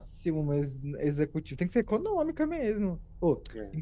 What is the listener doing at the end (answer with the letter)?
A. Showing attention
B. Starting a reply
A